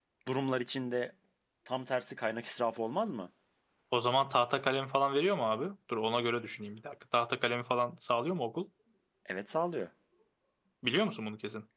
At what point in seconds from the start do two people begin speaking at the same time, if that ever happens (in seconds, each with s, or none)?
none